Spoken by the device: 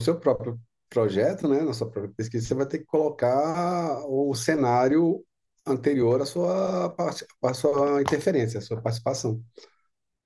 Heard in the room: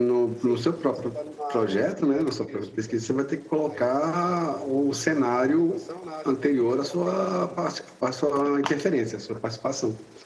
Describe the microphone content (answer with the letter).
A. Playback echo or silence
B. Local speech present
B